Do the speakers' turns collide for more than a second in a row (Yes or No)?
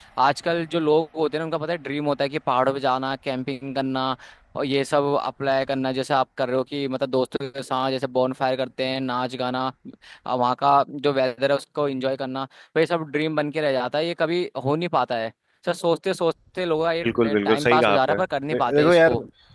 Yes